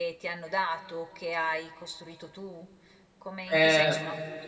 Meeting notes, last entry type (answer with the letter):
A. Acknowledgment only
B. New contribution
A